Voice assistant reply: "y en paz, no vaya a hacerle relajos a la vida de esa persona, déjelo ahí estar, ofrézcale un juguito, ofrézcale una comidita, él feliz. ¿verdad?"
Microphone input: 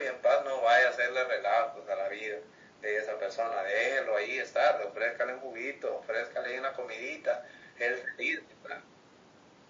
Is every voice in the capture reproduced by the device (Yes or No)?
Yes